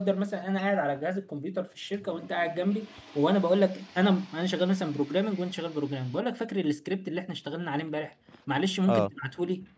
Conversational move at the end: listening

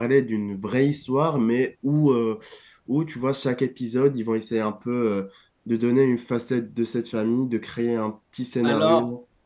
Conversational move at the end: taking over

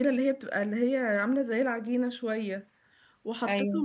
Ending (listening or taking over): listening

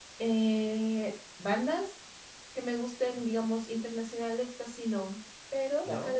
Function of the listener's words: listening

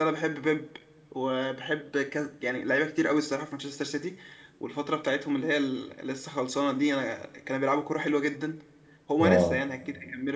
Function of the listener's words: listening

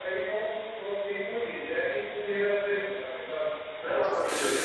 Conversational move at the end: taking over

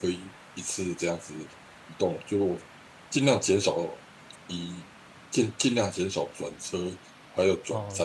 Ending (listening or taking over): taking over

